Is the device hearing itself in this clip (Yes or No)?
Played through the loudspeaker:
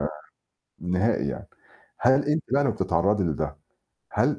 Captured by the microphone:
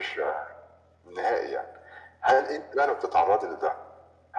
Yes